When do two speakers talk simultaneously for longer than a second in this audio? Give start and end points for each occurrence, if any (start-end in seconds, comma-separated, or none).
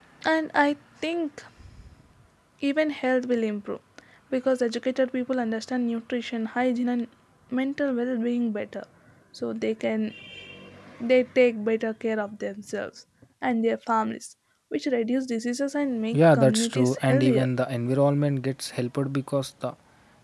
16.1-17.5